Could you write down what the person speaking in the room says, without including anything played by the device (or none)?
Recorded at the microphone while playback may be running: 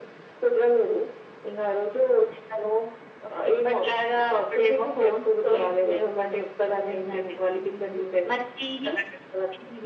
none